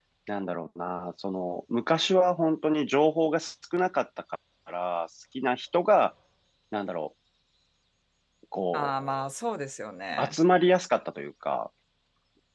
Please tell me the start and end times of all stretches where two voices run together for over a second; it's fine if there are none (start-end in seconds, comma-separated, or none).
none